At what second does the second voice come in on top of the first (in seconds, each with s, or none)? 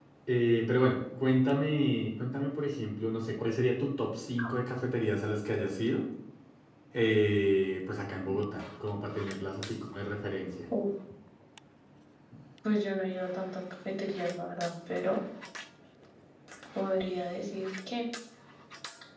none